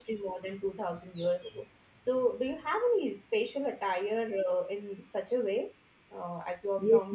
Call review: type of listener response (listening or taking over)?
taking over